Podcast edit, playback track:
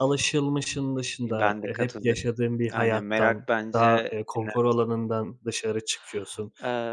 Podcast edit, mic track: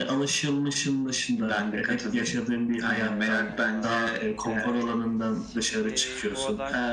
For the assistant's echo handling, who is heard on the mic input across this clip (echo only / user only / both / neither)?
both